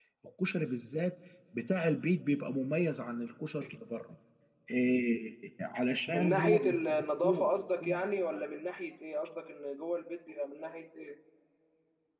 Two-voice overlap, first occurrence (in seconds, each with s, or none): 6.1 s